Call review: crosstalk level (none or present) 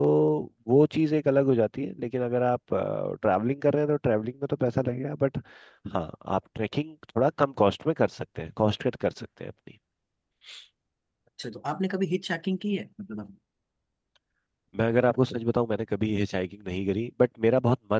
none